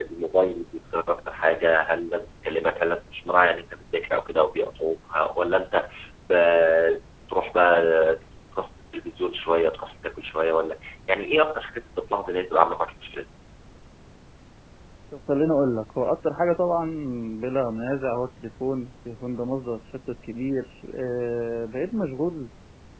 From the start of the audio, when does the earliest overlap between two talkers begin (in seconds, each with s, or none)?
none